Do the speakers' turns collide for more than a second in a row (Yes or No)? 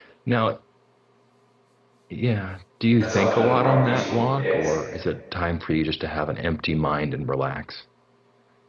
Yes